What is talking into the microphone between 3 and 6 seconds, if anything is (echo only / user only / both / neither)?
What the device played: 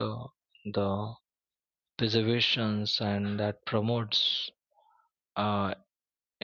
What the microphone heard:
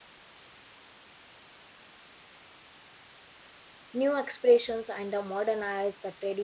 user only